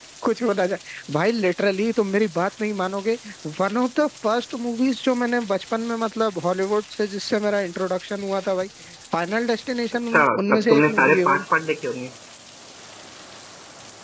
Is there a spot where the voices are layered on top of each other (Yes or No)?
Yes